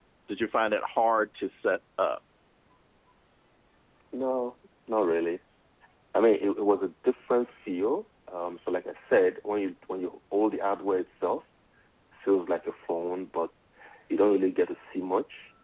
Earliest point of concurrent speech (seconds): none

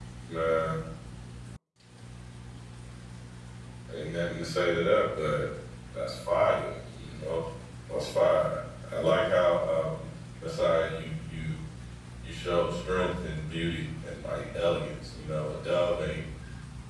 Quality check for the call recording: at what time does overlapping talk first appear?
none

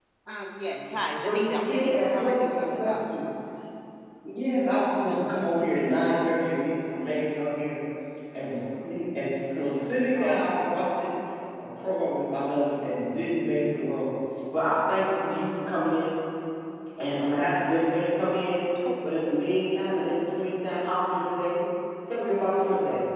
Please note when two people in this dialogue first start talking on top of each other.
1 s

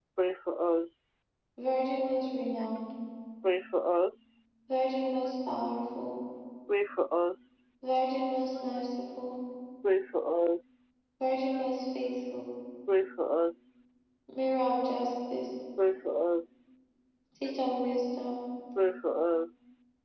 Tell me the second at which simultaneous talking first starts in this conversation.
none

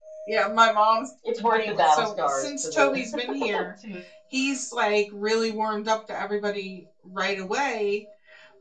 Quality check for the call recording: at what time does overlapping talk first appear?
1 s

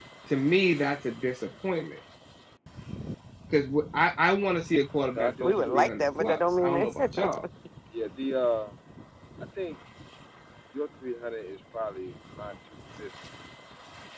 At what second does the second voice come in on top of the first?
5 s

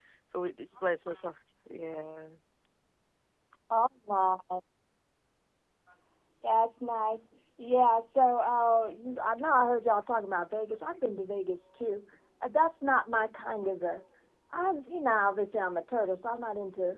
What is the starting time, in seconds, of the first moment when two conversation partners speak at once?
none

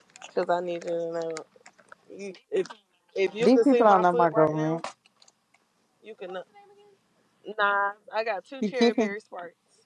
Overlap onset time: 3 s

